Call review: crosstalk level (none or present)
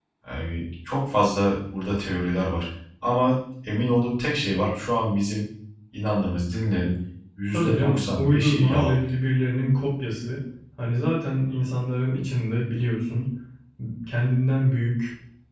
present